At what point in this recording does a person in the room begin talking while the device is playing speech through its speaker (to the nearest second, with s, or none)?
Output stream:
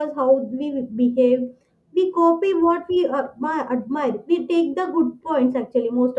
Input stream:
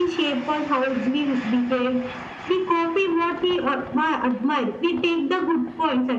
none